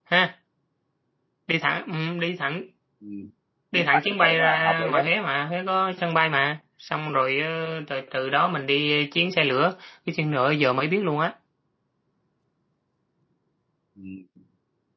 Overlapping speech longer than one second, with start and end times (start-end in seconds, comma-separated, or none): 3.7-5.0